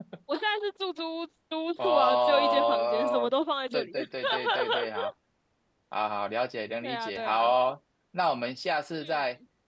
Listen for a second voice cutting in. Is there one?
Yes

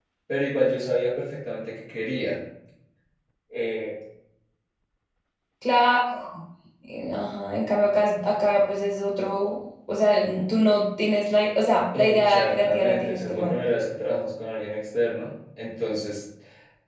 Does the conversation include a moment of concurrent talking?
Yes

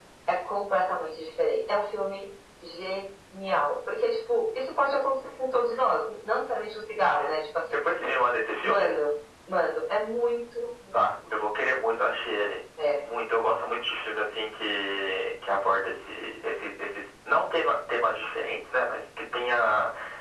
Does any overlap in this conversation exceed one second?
No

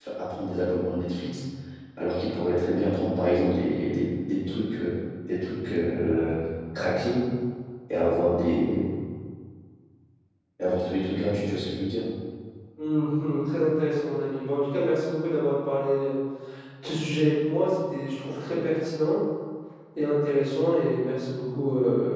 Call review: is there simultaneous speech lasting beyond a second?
No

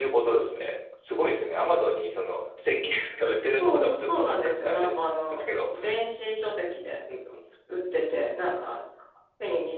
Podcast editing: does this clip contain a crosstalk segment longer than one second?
Yes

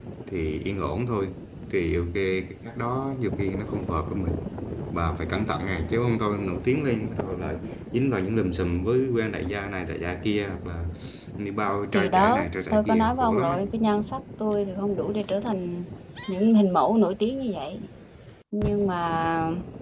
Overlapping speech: Yes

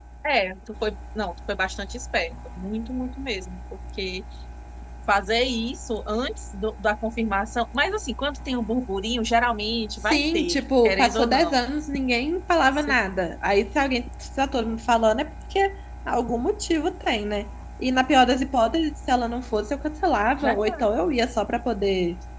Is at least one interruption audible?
Yes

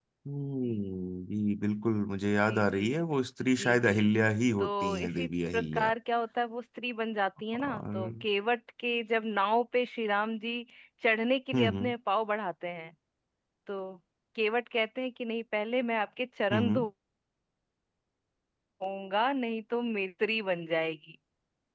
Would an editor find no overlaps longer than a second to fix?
No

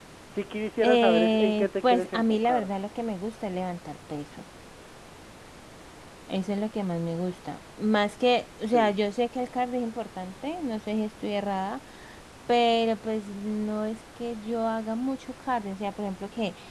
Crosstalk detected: Yes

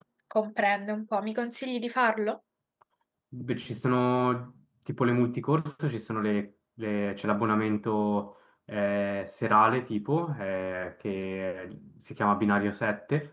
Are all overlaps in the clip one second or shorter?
Yes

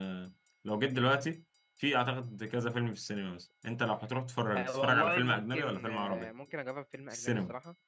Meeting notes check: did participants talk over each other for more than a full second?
Yes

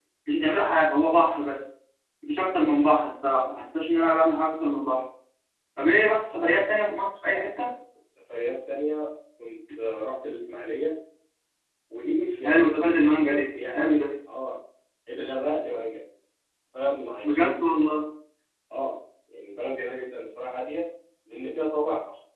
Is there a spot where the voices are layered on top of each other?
Yes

